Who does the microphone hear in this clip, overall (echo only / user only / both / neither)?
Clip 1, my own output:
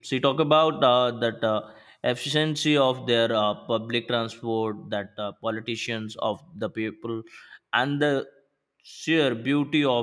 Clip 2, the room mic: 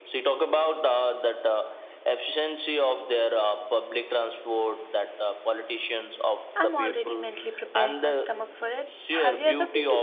both